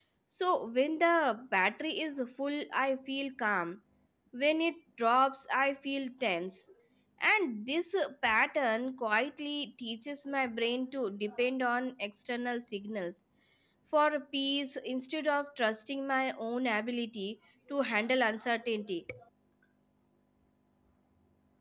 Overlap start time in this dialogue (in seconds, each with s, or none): none